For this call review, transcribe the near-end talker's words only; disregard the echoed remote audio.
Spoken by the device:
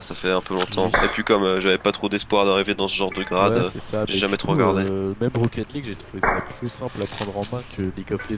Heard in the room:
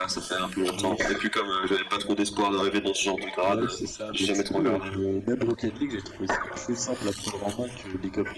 none

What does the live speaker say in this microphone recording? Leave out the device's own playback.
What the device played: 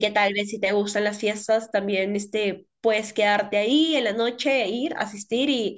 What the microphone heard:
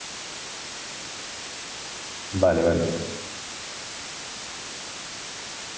Vale, vale.

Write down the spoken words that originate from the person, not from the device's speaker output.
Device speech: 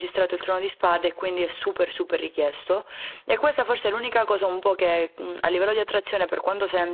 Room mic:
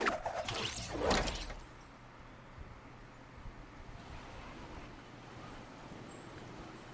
none

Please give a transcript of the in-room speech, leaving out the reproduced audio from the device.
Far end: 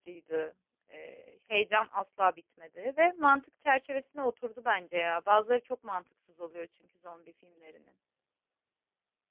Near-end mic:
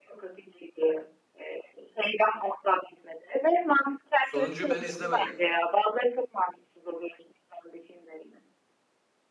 Sonuncuyu ben izlemedim.

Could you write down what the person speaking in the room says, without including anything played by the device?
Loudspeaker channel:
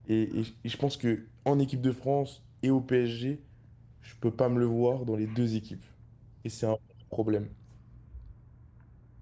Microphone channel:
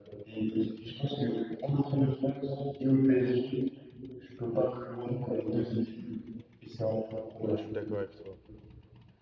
Ouais, je suis d'accord avec toi.

